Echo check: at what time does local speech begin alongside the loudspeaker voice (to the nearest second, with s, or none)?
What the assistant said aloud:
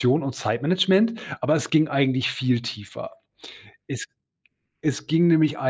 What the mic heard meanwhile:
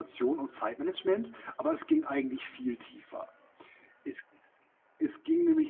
none